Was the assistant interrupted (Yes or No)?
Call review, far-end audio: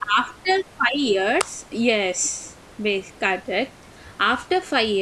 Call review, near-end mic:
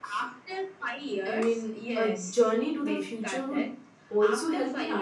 Yes